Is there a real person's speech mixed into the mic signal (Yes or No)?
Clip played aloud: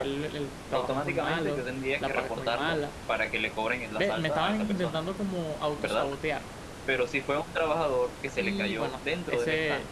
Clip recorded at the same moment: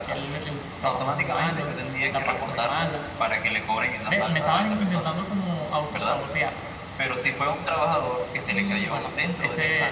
No